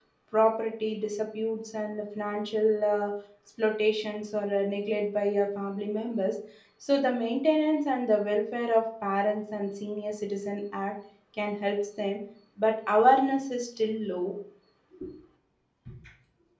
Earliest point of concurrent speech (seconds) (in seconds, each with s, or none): none